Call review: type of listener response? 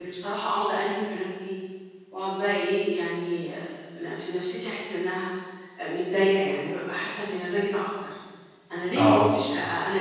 listening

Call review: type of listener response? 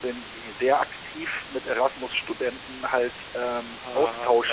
listening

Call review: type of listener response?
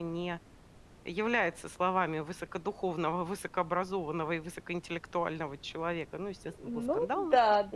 taking over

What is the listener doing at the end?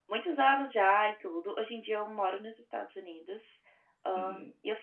listening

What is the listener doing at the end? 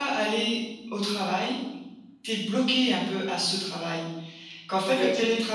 listening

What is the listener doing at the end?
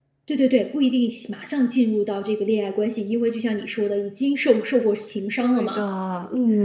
taking over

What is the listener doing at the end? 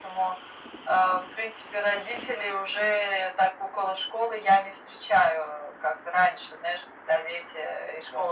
listening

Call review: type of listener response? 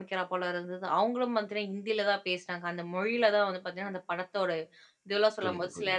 listening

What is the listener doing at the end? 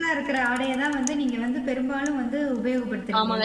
taking over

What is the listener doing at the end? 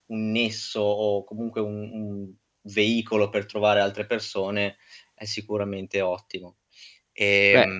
taking over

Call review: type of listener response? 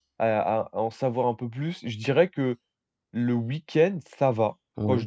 listening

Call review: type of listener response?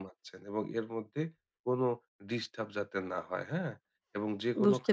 listening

